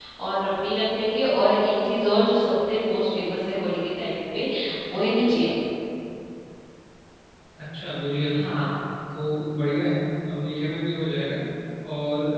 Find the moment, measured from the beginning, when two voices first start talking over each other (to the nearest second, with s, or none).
none